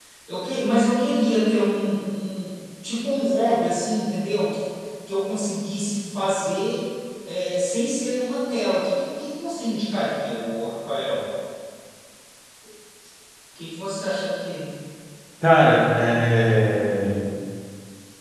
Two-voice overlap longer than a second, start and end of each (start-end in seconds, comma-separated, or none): none